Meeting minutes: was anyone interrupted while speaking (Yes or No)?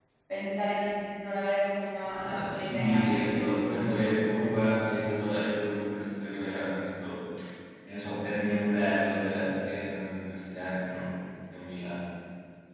Yes